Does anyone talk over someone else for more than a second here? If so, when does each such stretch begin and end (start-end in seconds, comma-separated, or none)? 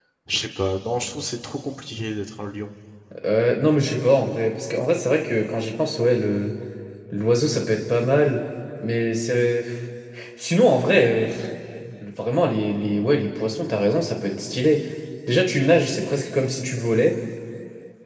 none